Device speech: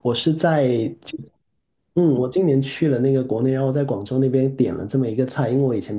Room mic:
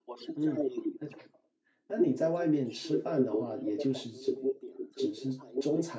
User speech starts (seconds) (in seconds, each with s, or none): 0.3 s